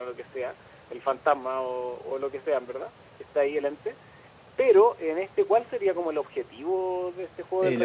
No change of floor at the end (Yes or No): No